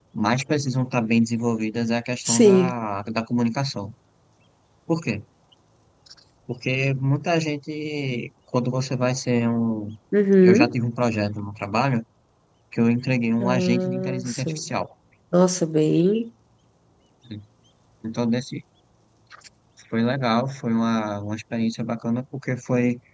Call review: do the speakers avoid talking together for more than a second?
No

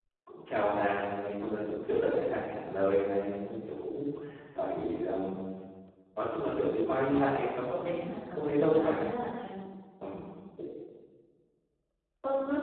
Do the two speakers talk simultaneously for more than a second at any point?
Yes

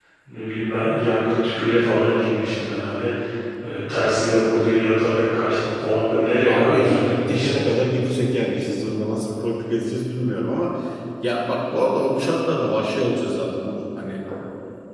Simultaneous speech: Yes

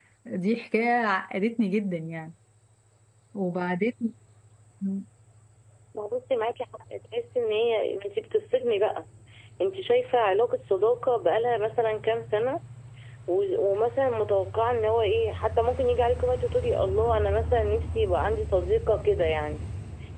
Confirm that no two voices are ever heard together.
Yes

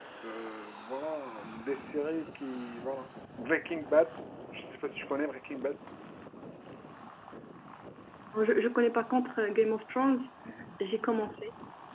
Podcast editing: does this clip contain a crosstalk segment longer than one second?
No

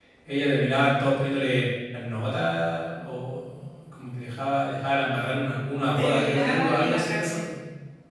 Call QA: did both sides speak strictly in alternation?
No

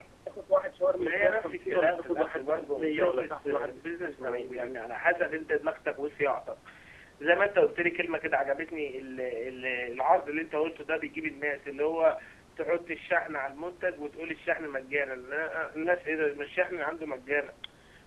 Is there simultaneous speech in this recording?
Yes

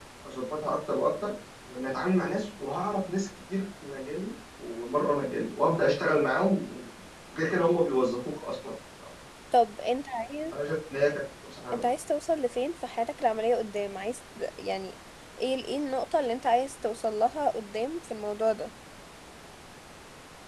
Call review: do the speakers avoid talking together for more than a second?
Yes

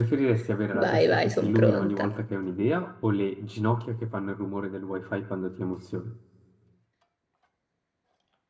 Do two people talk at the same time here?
Yes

